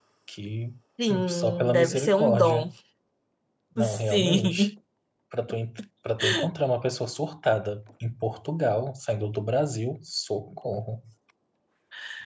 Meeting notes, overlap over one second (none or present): present